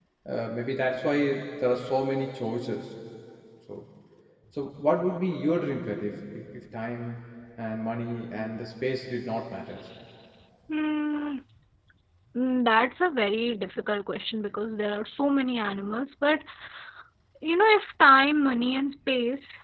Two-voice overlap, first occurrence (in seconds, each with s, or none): none